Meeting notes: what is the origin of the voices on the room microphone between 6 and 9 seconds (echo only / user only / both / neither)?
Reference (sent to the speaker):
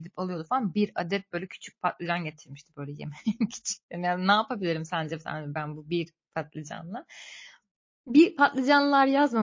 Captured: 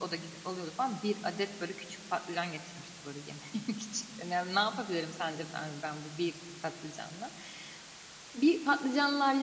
echo only